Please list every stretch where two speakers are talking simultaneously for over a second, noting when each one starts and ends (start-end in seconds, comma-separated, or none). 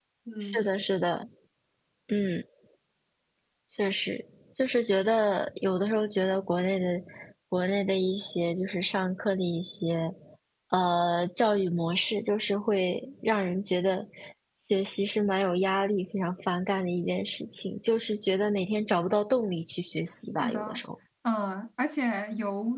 none